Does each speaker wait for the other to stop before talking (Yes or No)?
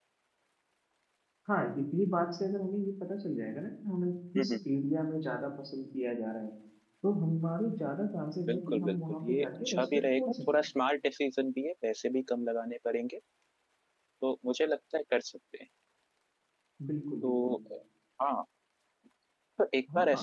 No